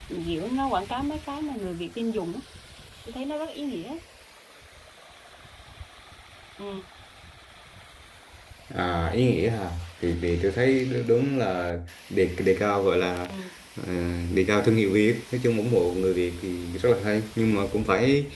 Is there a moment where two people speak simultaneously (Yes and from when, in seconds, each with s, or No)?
No